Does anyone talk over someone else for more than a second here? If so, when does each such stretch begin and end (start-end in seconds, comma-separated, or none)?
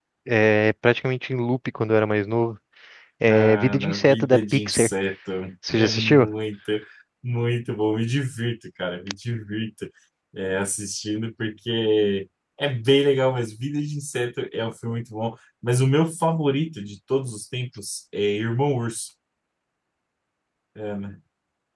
3.3-4.9